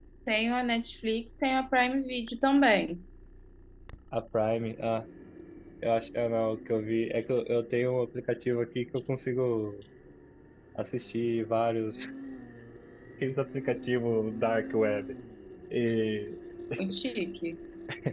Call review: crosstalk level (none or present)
none